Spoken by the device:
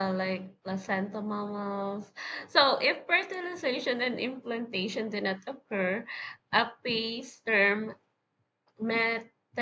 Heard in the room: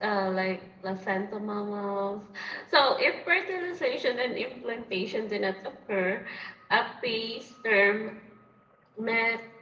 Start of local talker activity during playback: none

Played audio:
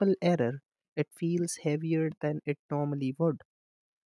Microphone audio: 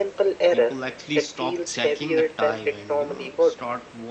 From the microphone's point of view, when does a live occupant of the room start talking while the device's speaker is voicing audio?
0.5 s

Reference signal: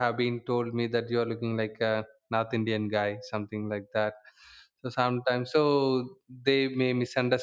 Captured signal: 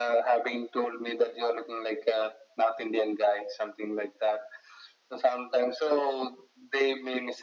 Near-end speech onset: none

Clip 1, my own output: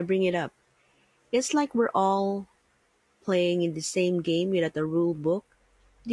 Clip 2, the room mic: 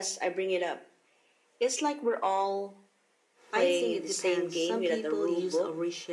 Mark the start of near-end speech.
3.5 s

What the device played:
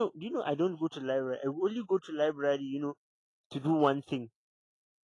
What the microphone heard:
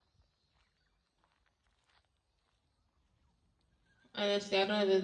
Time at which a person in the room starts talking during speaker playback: 4.1 s

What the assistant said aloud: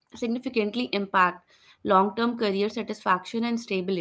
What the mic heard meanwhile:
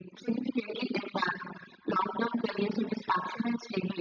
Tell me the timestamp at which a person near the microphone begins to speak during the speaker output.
none

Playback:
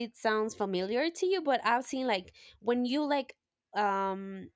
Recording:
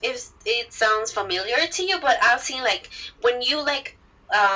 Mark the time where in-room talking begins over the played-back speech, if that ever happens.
none

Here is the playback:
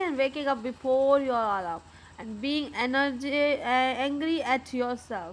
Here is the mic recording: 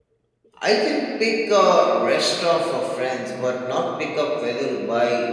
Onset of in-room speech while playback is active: 0.6 s

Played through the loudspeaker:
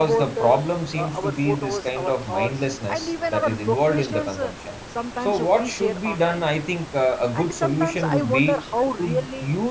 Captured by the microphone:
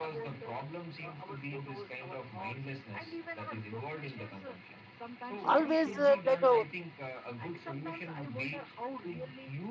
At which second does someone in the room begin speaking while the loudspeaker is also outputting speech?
5.4 s

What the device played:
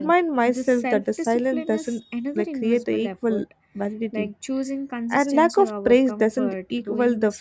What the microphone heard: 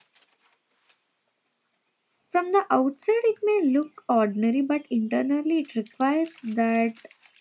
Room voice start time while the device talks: 2.3 s

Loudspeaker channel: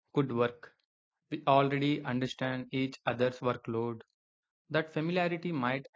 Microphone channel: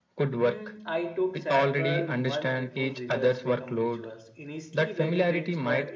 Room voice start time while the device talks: 0.4 s

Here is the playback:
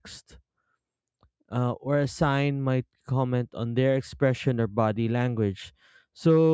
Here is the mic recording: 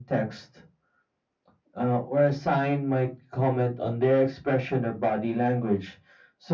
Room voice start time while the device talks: none

